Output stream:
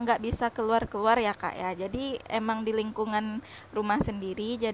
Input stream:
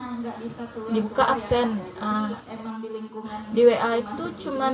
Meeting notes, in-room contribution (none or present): present